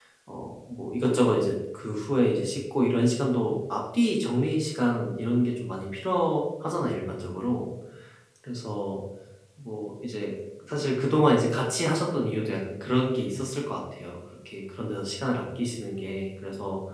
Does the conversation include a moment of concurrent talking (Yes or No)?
No